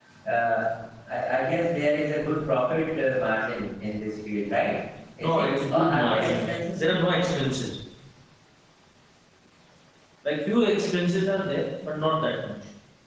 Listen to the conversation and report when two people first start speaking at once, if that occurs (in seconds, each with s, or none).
5.2 s